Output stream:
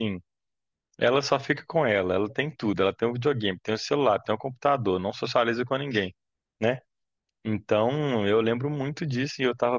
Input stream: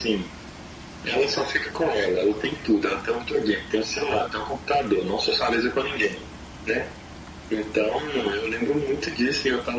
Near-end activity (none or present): none